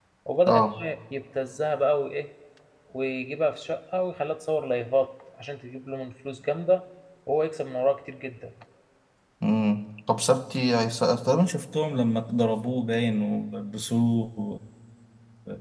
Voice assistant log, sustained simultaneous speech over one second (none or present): none